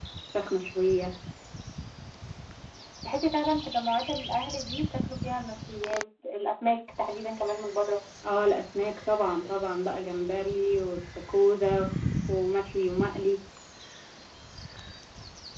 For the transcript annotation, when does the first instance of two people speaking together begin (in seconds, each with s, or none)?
none